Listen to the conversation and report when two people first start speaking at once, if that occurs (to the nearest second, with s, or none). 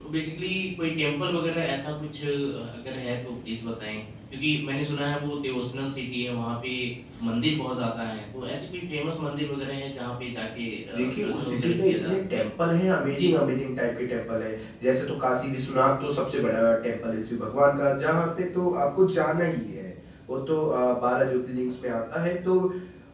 11 s